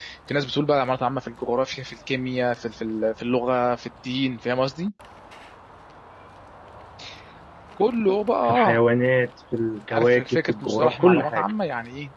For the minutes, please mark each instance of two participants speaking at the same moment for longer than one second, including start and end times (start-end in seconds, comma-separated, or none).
9.9-11.4